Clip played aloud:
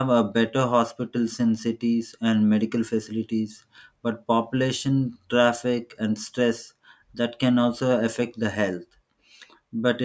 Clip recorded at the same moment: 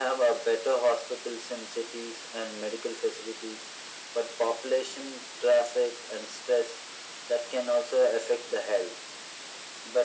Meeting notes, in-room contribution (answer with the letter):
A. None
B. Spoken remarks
A